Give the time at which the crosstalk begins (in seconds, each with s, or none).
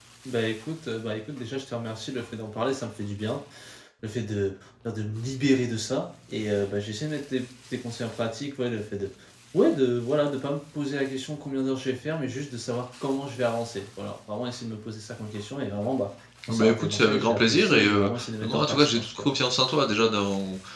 16.5 s